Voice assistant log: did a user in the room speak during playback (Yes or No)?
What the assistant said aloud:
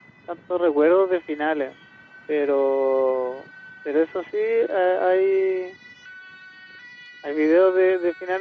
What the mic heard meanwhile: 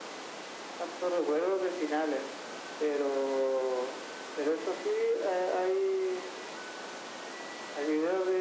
No